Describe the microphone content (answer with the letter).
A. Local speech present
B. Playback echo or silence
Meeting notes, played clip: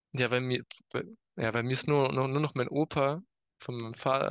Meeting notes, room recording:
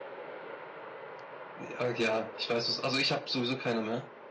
A